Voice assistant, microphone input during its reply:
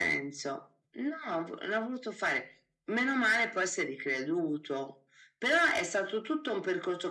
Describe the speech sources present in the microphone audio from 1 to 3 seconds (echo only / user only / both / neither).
echo only